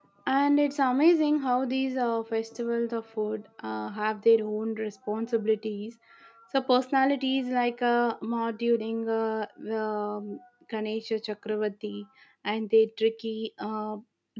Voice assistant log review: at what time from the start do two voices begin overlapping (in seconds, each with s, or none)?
none